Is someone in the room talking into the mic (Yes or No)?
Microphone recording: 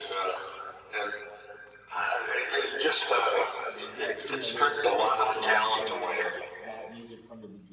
Yes